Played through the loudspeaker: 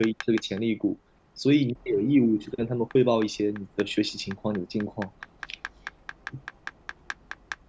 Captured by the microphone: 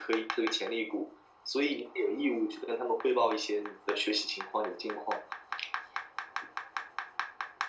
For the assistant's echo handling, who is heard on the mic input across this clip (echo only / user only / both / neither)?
echo only